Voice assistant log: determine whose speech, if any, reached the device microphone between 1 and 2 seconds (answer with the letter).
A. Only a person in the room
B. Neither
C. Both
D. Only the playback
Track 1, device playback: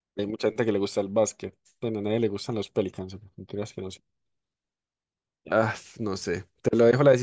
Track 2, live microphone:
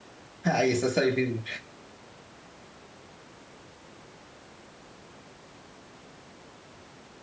A